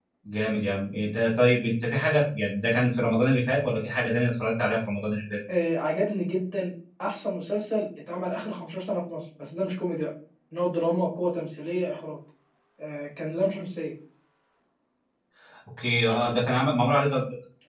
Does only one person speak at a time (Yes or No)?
Yes